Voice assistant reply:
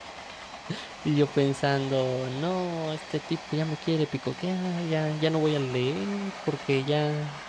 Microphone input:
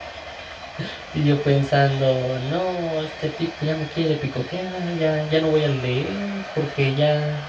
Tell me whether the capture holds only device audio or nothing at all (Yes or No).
Yes